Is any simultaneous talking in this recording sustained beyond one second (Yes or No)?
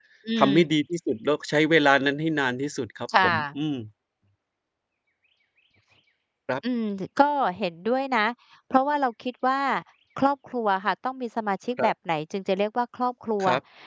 No